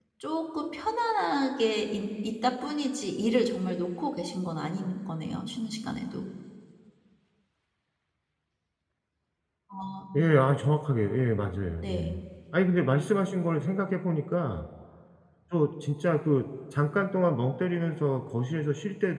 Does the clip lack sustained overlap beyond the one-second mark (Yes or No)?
Yes